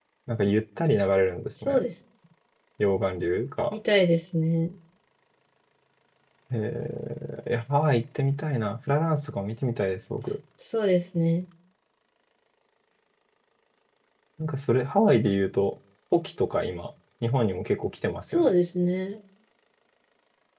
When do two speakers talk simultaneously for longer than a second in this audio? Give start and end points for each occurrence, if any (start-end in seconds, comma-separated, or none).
none